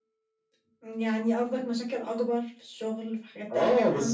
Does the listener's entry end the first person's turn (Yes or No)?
Yes